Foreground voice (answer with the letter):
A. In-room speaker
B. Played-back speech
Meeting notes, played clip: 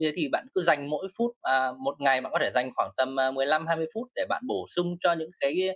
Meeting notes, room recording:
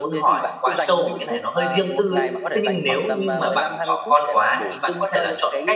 A